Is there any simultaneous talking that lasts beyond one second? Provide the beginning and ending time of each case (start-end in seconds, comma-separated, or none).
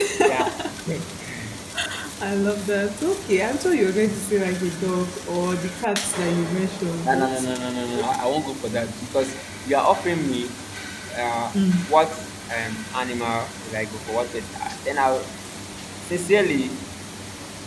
none